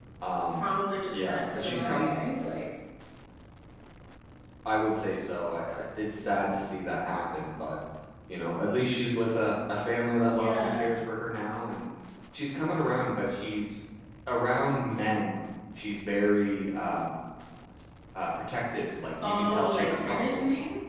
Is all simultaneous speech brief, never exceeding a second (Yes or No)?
No